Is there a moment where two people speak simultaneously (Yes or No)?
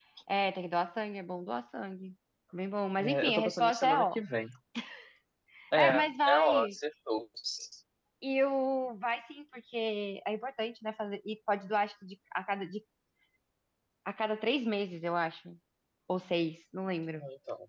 Yes